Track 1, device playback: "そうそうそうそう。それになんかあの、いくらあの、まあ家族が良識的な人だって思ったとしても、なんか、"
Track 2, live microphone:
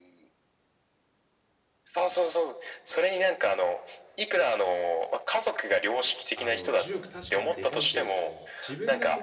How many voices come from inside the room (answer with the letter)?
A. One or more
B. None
A